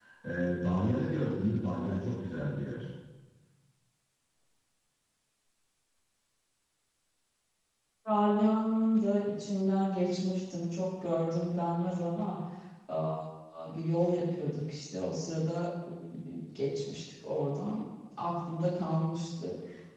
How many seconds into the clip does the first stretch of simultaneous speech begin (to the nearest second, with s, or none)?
none